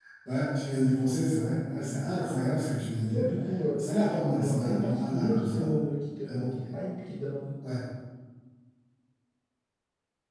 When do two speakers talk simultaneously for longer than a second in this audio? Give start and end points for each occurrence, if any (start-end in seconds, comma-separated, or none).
4.3-5.7